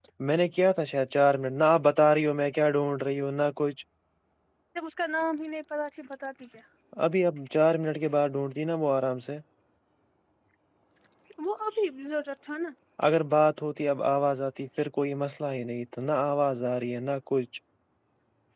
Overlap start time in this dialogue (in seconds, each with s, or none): none